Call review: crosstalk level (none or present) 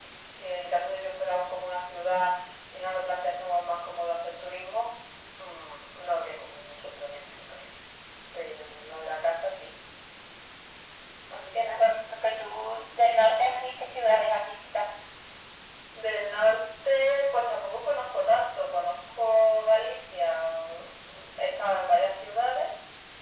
none